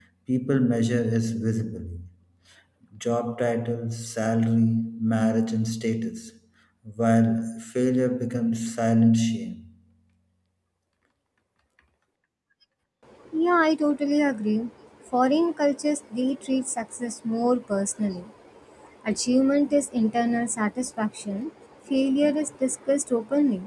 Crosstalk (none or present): none